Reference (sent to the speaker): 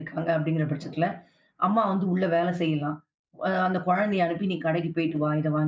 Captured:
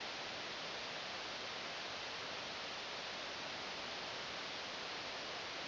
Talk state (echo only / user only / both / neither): neither